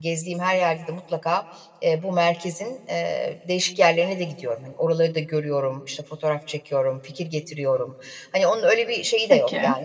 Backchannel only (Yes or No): Yes